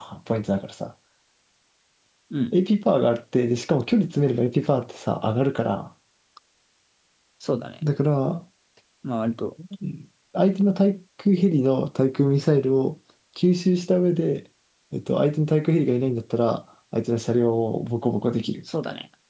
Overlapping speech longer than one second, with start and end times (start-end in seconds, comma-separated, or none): none